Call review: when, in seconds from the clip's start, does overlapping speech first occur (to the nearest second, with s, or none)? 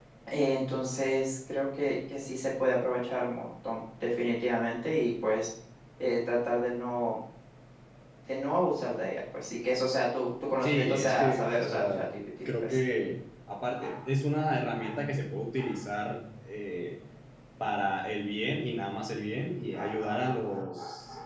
11 s